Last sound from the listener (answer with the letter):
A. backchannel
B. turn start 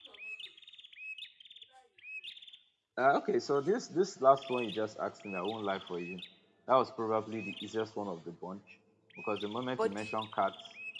A